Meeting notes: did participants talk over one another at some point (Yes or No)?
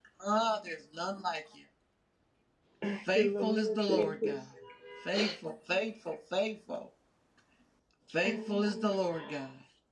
Yes